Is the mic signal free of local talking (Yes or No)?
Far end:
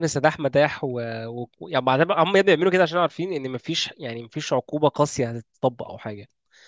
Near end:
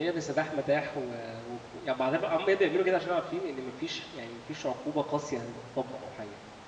Yes